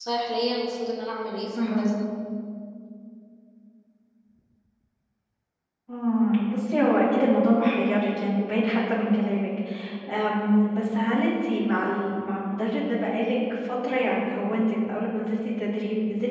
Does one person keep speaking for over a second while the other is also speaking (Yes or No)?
No